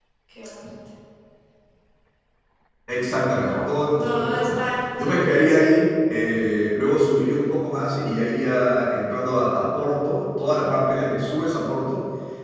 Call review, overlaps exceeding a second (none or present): present